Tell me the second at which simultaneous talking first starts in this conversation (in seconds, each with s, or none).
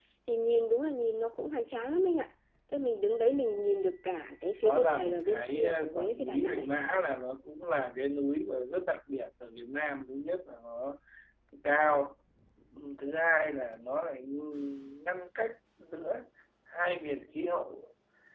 4.6 s